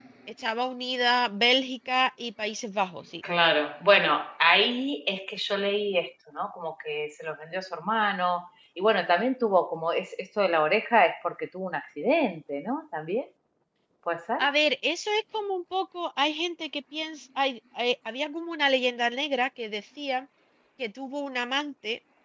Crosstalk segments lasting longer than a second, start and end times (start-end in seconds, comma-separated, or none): none